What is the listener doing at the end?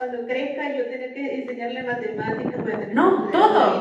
taking over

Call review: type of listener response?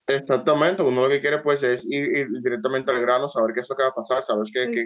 listening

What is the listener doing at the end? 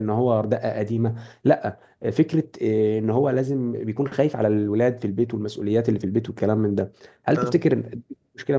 listening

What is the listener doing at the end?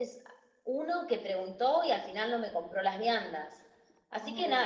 listening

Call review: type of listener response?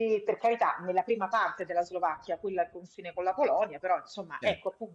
listening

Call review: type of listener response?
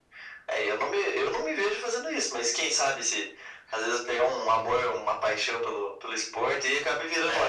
taking over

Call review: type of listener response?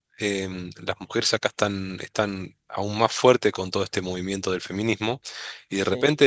listening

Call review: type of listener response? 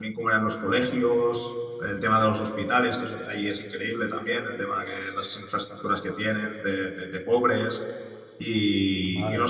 listening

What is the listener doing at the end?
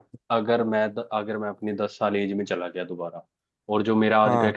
listening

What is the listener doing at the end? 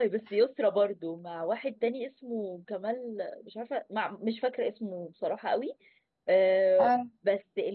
listening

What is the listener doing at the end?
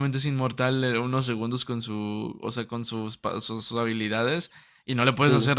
listening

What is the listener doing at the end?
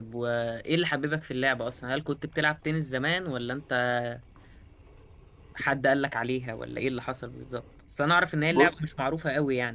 listening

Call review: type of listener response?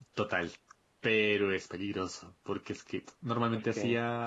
listening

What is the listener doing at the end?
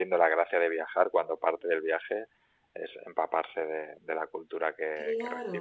taking over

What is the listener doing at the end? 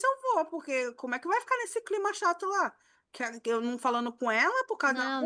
listening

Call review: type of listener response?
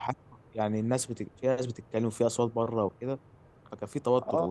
taking over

